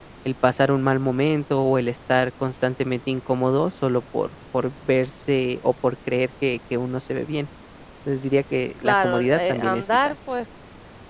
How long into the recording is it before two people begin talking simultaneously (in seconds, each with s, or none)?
8.8 s